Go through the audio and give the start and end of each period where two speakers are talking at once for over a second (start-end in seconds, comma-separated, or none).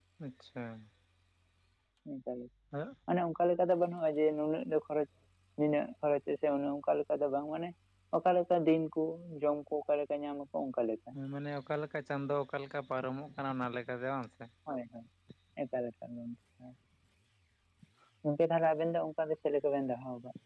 none